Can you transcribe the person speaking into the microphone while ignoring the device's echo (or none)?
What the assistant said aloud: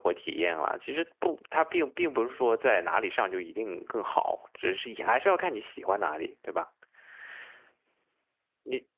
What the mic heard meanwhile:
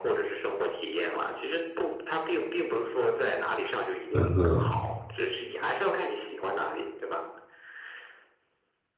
嗯哼，